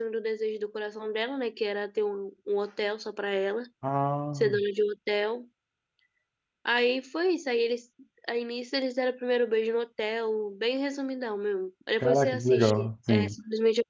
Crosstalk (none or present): present